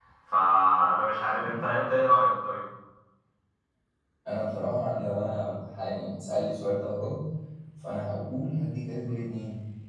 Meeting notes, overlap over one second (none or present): none